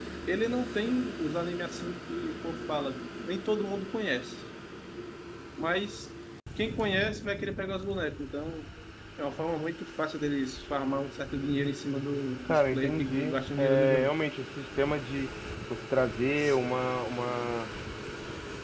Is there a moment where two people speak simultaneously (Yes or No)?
Yes